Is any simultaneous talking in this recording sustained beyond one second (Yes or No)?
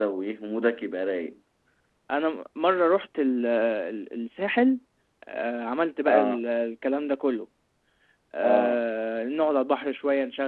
No